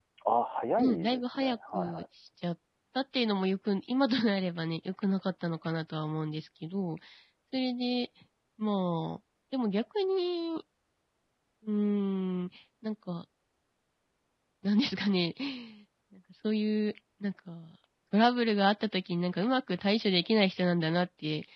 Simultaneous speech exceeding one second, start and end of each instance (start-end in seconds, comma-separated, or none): 0.8-2.0